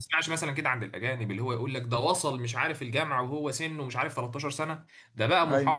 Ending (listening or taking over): listening